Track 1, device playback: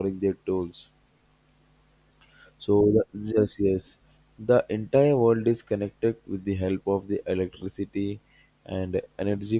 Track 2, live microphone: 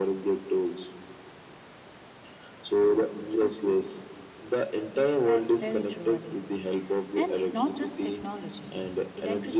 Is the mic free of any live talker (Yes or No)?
No